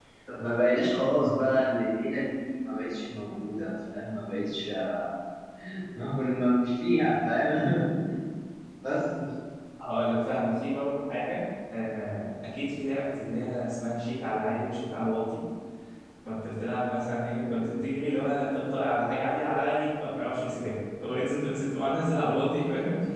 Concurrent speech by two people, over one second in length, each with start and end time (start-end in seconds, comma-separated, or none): none